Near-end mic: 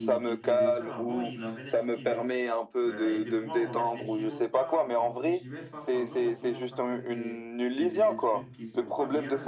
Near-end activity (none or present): present